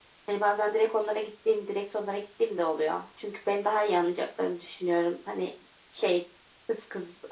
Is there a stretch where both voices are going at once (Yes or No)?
No